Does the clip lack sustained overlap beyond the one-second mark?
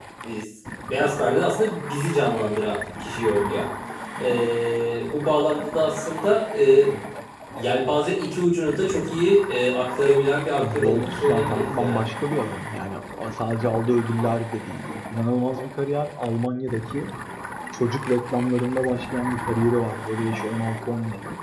No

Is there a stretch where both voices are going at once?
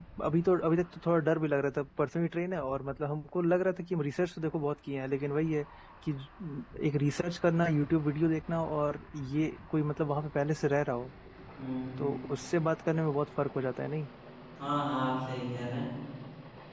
No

